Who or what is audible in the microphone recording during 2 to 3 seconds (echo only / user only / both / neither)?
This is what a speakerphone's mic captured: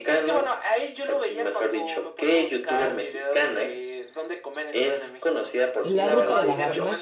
echo only